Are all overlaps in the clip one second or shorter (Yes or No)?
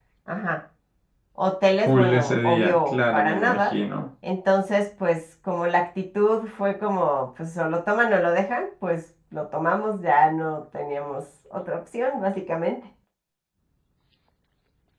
No